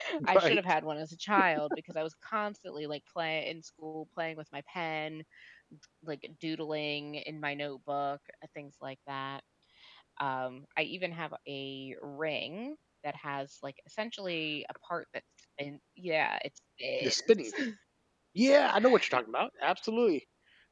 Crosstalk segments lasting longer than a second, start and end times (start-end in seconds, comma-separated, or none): none